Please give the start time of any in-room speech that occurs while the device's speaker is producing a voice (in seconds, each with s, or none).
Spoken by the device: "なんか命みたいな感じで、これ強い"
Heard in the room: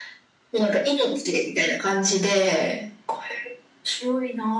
none